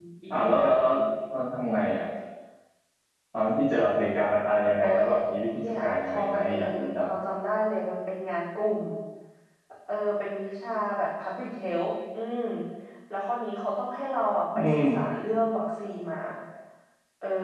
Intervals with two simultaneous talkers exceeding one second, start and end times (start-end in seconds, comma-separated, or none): 5.6-7.1